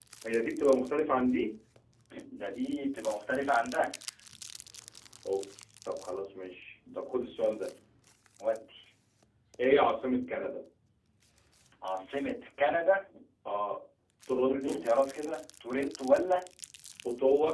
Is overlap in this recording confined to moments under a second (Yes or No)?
Yes